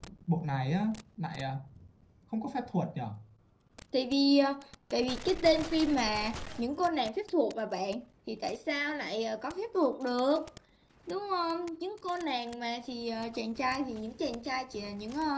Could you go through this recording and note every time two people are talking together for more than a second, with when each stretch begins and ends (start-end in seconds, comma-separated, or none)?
none